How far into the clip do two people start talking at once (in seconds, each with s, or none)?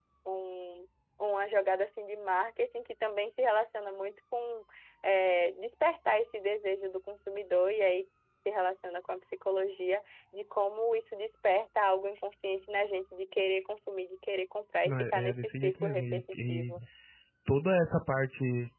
14.8 s